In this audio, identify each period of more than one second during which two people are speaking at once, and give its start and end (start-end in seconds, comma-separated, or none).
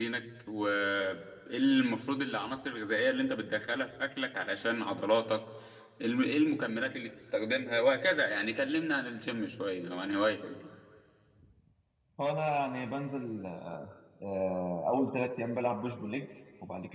none